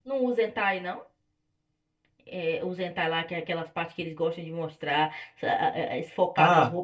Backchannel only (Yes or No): No